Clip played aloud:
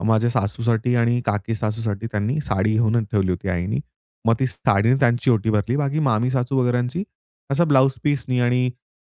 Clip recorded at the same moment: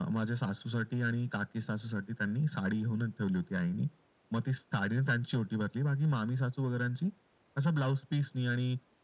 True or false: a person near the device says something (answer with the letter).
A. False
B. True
A